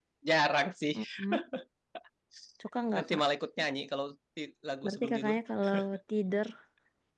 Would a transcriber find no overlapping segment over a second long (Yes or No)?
Yes